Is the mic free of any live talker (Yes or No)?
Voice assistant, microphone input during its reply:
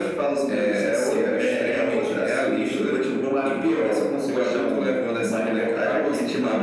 Yes